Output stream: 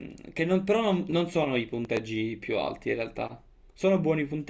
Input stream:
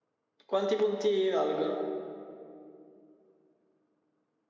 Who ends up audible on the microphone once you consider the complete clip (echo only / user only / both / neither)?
user only